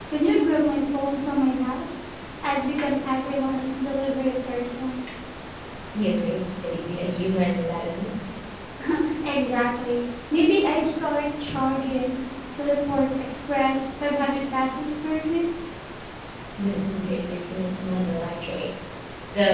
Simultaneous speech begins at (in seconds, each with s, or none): none